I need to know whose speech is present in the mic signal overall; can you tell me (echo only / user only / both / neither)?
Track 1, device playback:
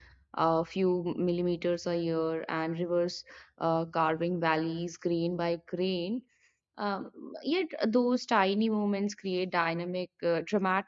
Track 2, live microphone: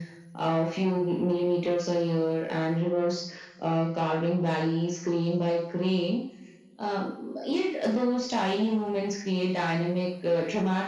echo only